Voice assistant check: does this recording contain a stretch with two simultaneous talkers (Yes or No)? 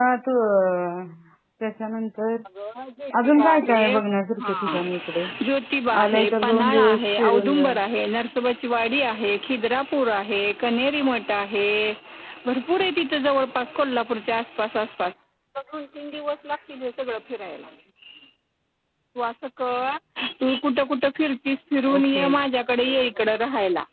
Yes